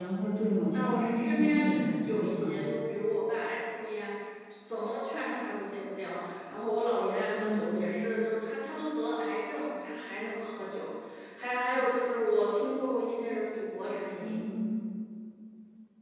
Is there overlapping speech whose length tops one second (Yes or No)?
Yes